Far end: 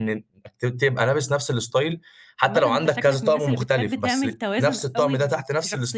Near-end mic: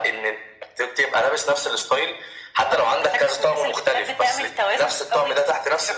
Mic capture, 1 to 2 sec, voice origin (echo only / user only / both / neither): echo only